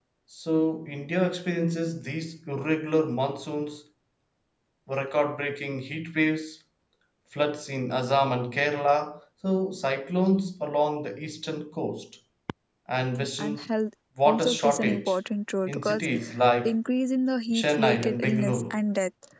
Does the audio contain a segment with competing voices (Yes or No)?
Yes